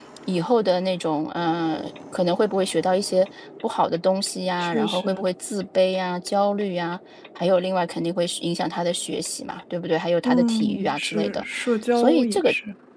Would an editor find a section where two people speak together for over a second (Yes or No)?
Yes